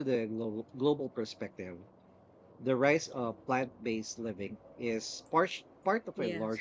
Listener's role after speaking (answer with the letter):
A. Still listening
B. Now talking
A